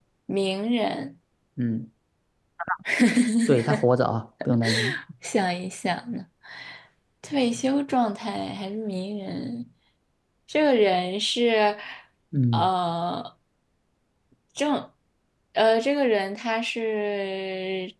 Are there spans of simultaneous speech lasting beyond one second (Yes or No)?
No